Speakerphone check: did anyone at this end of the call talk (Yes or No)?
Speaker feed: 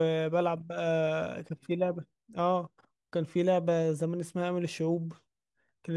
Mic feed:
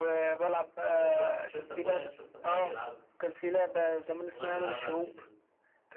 Yes